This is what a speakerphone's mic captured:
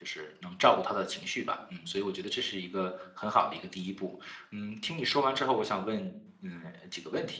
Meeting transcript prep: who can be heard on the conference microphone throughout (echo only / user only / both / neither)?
user only